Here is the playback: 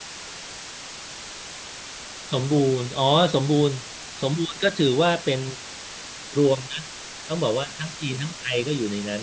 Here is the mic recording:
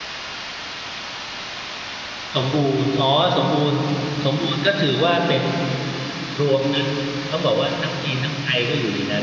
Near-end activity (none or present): none